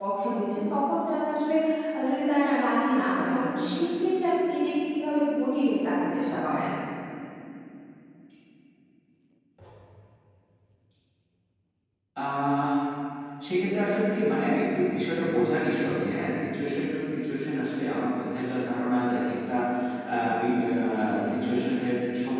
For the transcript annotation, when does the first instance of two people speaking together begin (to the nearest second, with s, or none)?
none